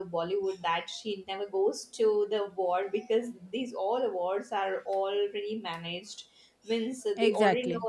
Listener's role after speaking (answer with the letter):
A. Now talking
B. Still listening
B